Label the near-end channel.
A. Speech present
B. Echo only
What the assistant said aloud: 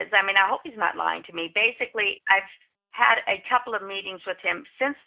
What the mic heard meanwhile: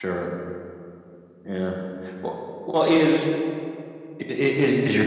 A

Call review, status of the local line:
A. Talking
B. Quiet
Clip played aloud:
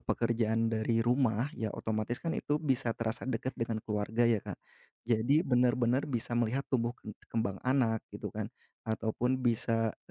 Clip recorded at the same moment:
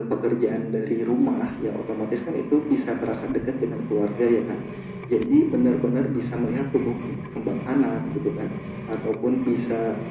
B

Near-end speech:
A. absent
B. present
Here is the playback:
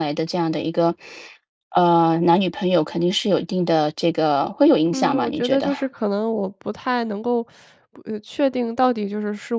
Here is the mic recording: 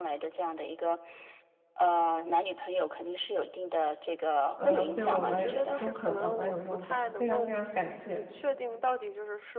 B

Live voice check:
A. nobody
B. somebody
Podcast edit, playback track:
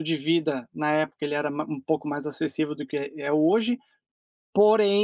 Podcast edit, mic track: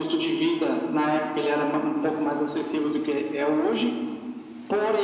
A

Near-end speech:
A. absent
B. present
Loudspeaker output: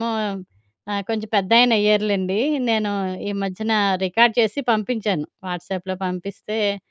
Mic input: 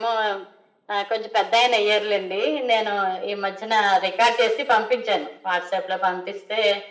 A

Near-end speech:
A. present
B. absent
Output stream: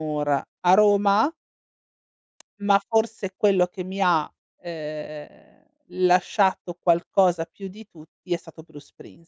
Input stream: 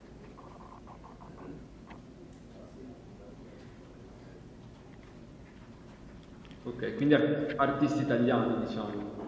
A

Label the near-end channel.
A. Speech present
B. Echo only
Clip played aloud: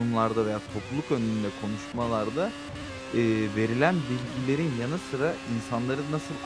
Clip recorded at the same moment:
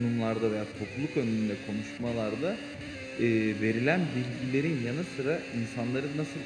B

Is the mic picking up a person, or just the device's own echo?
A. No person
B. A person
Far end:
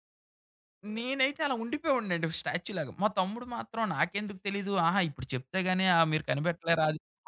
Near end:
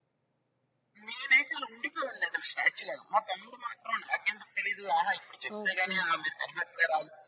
B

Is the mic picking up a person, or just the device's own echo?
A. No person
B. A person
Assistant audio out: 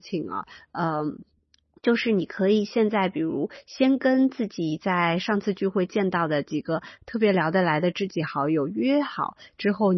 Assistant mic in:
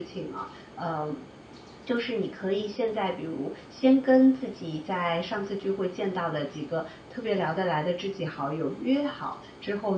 A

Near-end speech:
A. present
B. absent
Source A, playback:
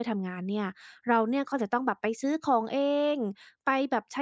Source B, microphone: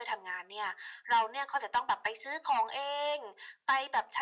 B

